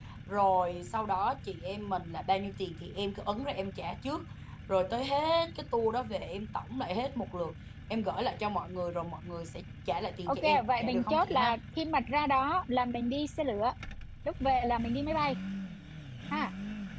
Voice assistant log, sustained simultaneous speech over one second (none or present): present